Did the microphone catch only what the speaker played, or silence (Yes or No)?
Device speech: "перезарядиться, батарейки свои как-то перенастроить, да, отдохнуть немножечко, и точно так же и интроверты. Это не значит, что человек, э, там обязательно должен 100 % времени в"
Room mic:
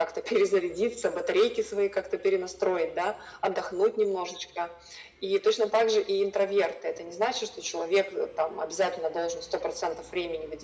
Yes